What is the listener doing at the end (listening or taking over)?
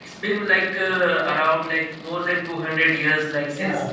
taking over